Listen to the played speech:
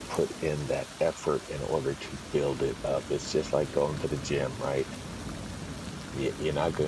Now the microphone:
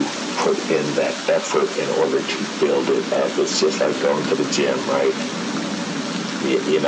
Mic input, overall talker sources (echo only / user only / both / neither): echo only